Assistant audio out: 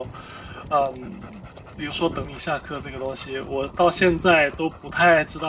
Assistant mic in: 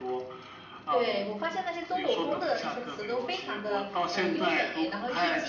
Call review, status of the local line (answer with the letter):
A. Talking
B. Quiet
A